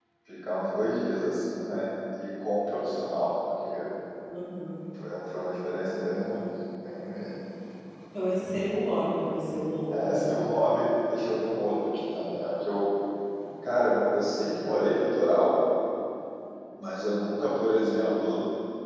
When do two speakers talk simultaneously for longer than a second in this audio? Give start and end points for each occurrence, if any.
none

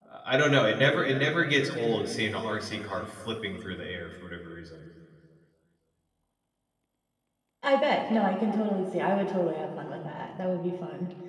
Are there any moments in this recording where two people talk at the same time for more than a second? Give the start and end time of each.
none

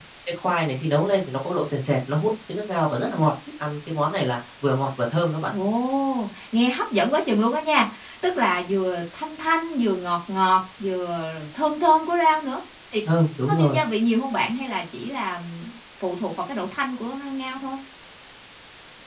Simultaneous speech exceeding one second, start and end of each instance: none

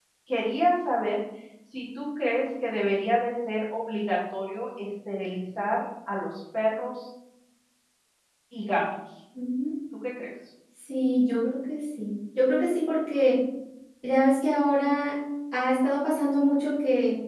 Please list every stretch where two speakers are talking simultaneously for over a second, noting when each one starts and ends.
none

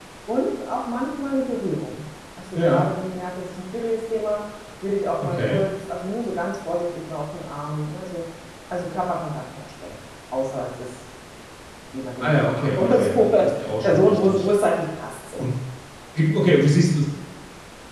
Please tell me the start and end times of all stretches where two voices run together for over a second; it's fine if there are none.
12.2-14.5

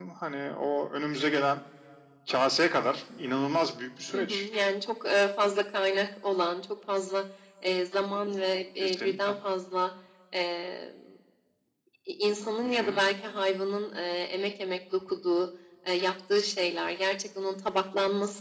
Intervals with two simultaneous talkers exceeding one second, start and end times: none

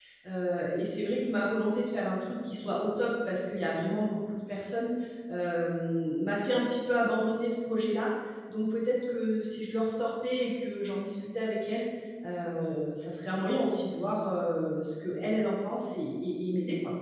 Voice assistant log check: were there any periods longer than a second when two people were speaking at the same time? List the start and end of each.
none

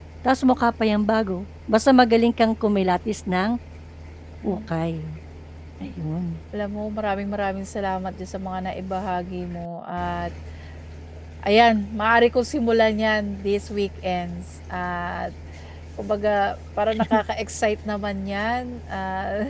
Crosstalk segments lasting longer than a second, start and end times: none

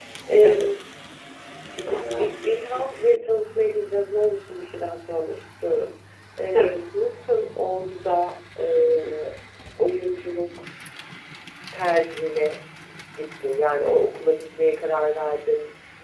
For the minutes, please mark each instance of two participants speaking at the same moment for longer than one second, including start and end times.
none

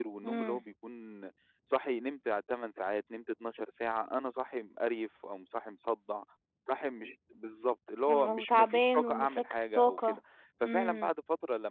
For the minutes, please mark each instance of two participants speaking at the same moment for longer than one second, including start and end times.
8.1-10.2

